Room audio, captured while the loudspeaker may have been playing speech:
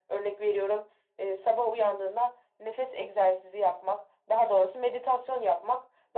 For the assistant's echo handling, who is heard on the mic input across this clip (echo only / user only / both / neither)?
echo only